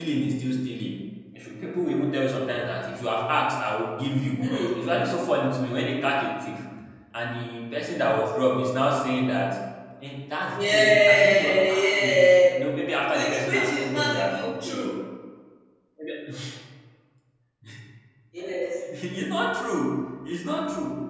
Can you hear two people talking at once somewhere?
Yes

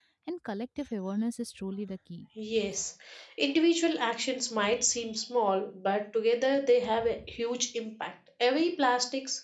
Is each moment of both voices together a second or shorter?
Yes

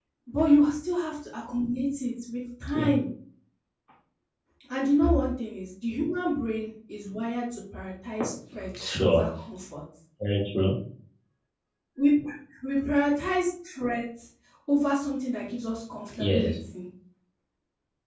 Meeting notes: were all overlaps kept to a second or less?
Yes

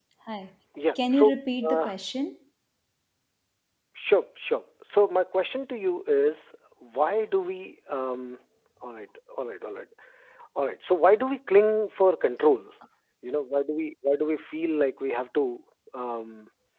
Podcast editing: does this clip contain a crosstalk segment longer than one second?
No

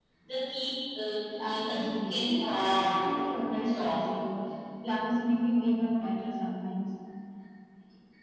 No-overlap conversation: No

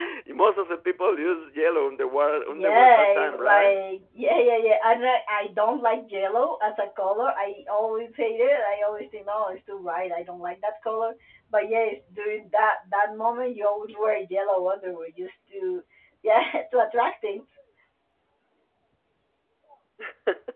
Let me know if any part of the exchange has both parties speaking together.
Yes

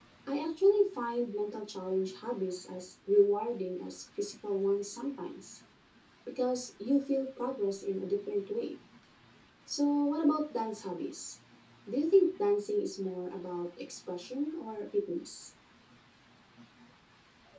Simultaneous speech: No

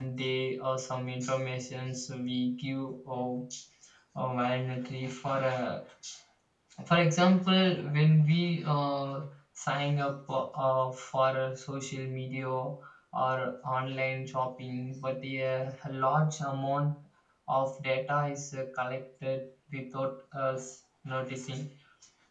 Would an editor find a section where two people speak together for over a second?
No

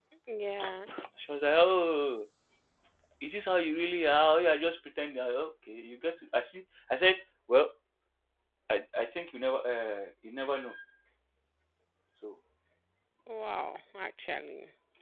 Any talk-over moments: No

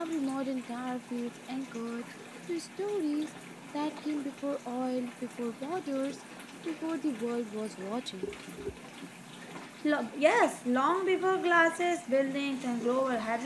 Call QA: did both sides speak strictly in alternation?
Yes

